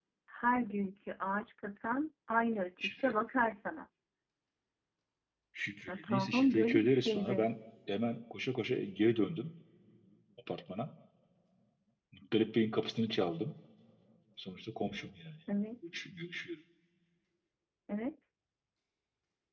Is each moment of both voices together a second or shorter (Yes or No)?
No